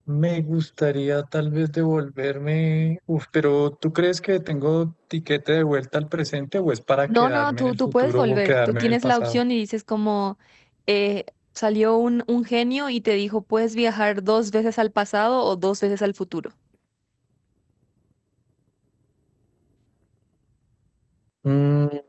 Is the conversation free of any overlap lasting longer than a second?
No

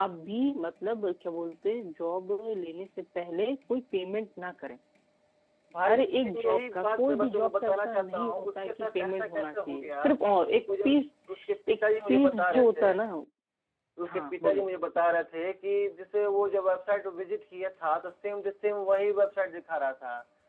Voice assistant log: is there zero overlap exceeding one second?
No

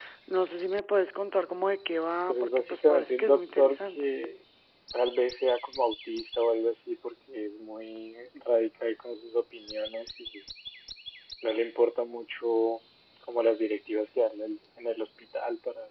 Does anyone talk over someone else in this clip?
Yes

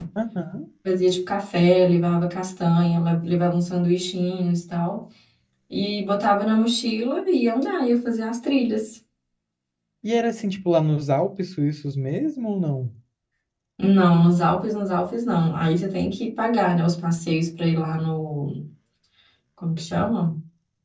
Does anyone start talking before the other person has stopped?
No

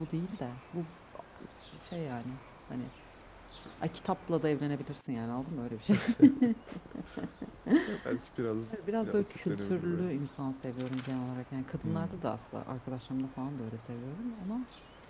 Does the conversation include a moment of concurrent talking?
Yes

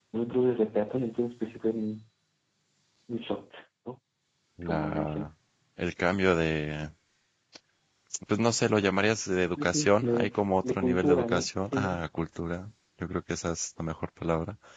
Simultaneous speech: Yes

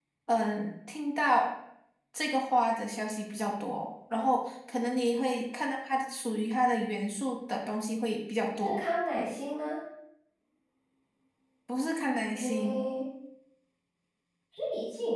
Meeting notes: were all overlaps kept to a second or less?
Yes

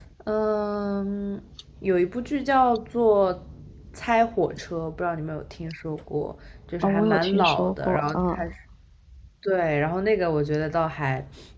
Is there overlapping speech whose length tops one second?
Yes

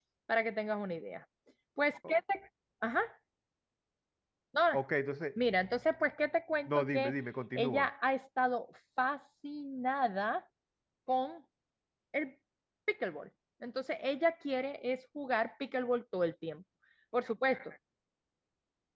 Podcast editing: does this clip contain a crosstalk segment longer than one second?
No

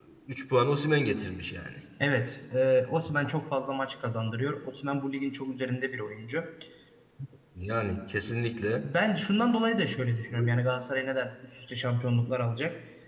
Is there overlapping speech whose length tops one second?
No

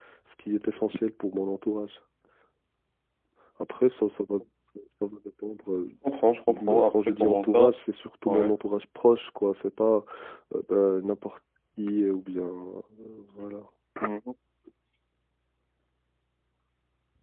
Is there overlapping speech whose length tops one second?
Yes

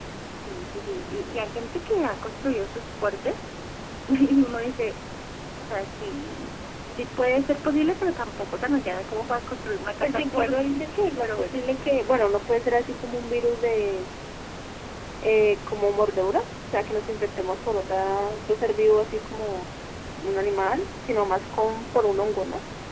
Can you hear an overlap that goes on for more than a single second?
Yes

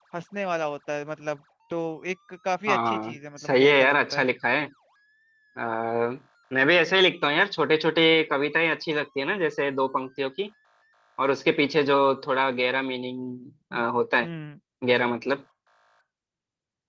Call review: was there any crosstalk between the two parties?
Yes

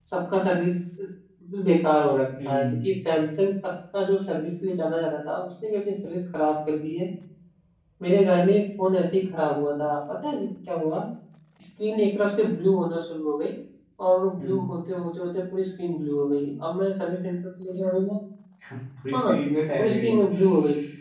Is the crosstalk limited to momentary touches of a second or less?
Yes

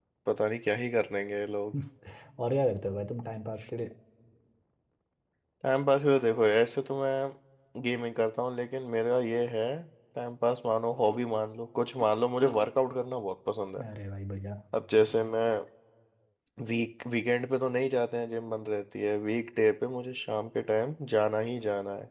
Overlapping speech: No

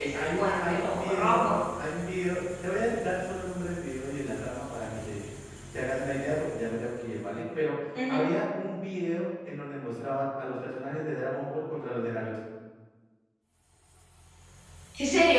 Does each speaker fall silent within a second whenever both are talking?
No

